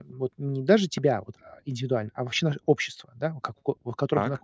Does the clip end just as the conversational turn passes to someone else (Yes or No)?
No